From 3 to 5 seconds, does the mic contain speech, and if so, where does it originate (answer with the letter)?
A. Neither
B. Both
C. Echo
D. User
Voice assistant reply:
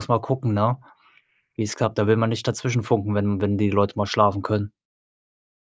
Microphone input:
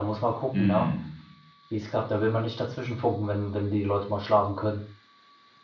C